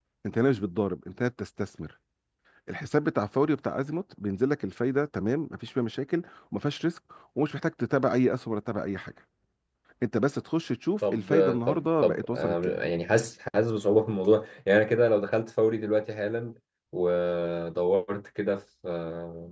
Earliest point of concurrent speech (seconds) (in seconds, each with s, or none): 11.0 s